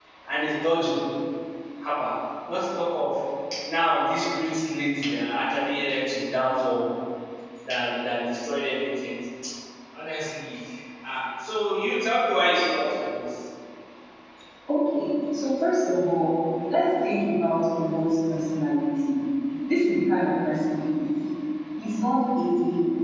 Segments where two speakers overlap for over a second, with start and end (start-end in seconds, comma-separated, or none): none